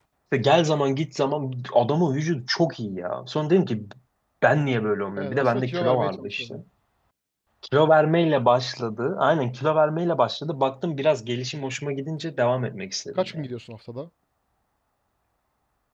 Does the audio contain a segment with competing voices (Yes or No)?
Yes